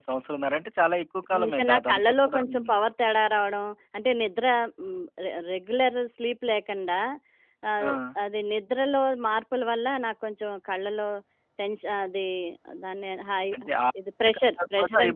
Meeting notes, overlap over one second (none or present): present